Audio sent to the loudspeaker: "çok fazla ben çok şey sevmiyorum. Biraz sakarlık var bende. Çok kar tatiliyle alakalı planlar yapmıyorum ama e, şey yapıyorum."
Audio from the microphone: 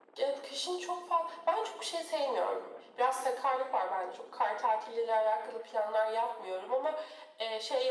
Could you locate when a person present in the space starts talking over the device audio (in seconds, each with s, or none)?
none